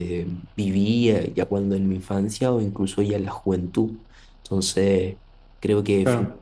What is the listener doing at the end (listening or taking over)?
listening